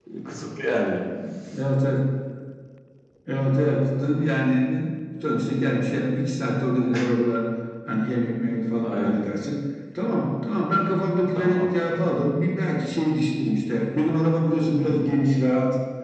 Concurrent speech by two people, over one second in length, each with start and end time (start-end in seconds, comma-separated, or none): none